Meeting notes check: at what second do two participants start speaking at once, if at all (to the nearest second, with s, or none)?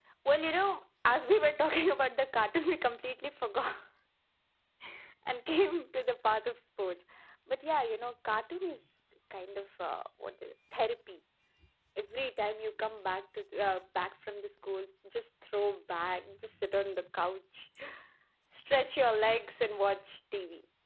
none